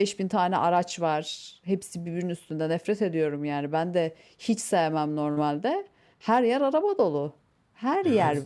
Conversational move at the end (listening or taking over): taking over